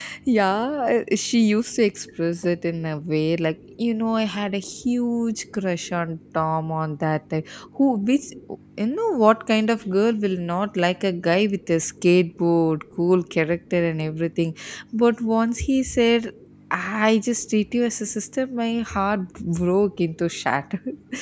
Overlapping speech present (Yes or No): No